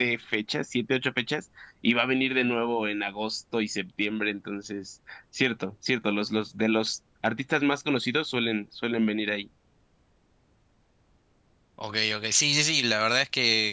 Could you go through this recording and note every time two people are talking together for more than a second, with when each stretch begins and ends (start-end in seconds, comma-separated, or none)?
none